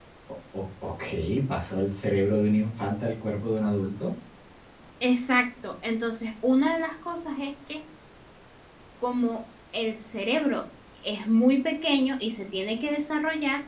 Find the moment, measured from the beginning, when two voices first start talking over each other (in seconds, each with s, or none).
none